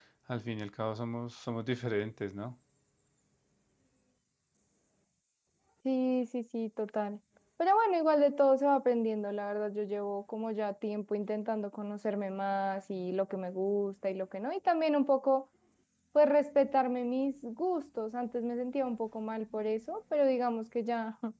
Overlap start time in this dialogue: none

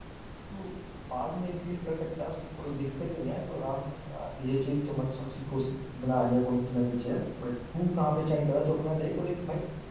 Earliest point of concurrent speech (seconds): none

